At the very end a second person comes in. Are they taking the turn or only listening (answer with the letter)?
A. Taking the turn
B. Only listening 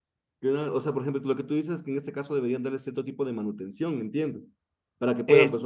B